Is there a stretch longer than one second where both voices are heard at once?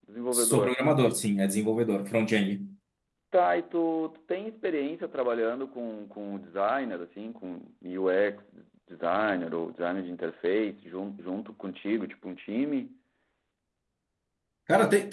No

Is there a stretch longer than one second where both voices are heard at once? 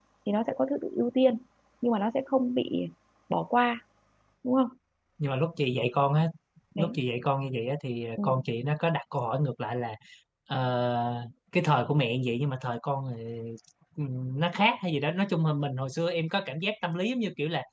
No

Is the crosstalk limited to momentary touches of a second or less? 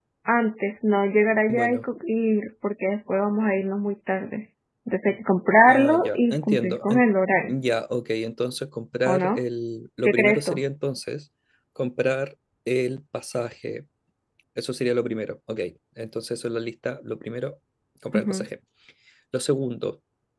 No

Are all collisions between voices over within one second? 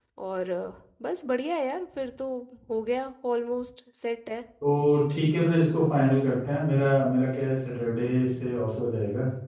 Yes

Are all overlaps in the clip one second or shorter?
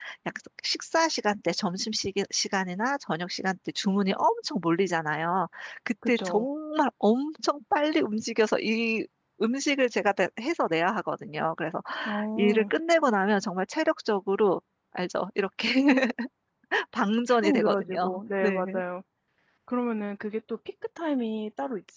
No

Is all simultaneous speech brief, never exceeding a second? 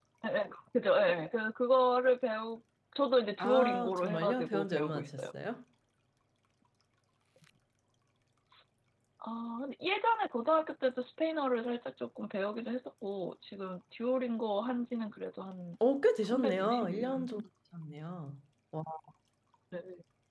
No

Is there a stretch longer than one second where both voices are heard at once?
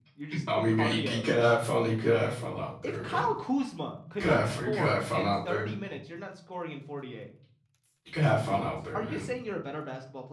Yes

